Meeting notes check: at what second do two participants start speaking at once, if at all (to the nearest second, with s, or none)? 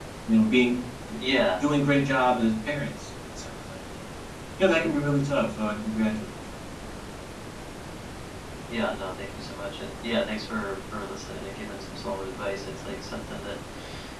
none